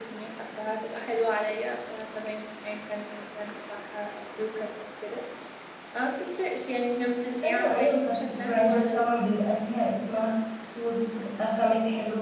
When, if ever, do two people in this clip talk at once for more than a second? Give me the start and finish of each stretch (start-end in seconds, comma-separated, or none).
7.4-9.1